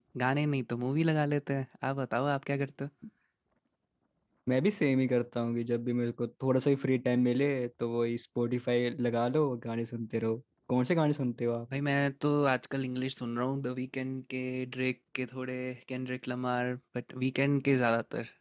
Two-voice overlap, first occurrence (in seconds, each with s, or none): none